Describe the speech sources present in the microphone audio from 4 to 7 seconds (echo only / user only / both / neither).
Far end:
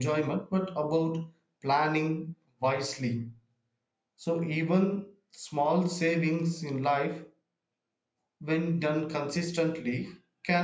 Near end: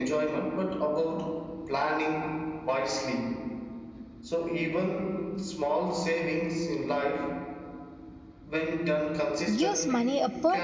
echo only